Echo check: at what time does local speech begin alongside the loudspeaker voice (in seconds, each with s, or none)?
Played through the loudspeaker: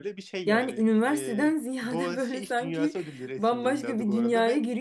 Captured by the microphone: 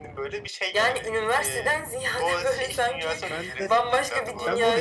3.3 s